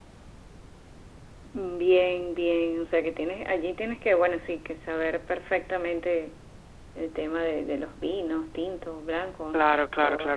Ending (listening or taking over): taking over